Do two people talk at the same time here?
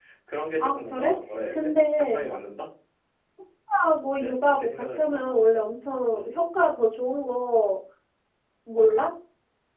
Yes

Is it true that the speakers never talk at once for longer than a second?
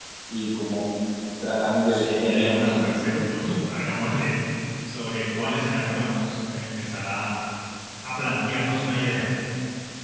No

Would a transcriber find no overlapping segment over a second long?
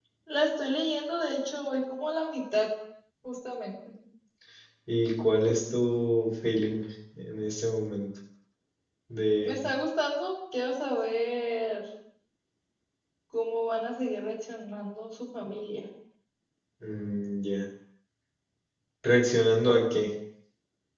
Yes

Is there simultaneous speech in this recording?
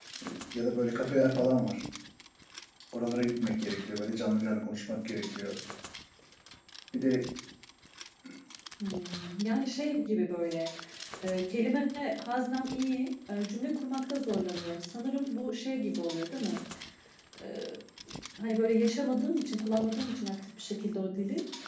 No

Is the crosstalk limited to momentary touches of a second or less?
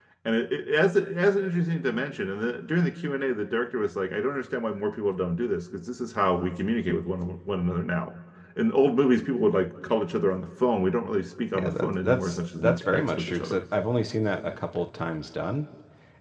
No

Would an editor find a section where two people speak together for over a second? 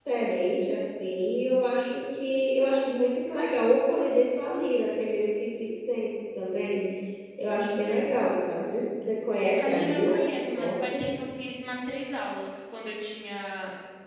Yes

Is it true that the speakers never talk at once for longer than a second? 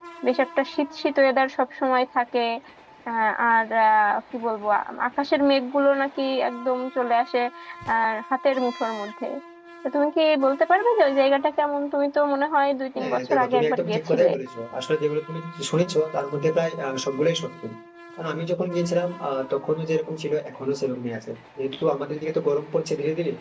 No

